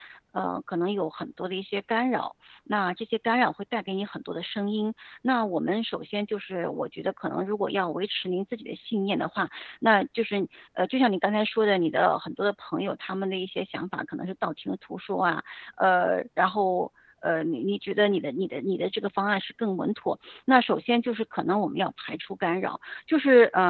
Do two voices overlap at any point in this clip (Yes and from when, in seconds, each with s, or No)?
No